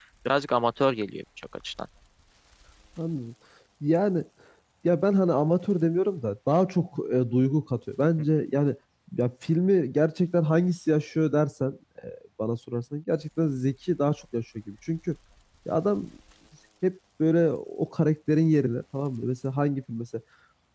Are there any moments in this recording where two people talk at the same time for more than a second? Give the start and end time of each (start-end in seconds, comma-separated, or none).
none